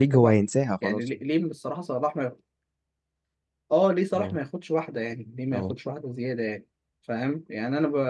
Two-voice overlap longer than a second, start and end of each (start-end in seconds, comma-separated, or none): none